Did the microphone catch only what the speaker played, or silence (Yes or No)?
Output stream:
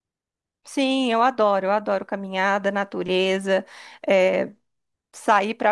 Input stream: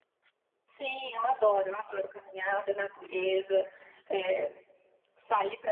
Yes